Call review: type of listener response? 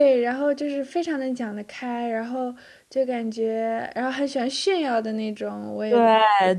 taking over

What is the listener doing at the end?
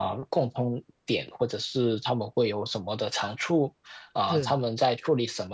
listening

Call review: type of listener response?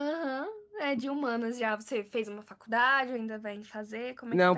taking over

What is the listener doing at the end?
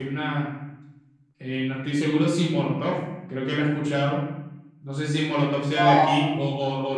listening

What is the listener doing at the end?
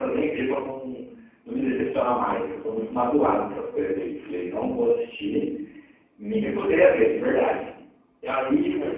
listening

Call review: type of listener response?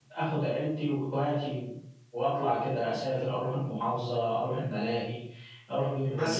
taking over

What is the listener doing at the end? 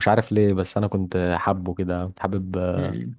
taking over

